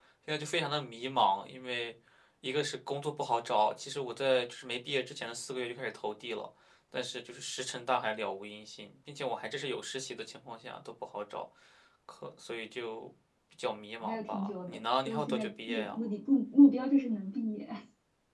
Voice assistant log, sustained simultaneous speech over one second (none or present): present